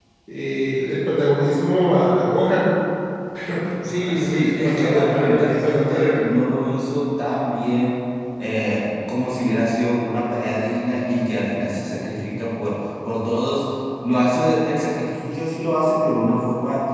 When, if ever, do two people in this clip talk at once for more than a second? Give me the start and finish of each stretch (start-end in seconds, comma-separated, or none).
3.8-6.2